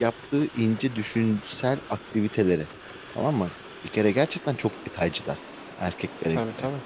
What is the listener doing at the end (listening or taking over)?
listening